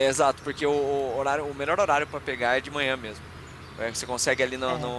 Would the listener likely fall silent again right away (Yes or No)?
Yes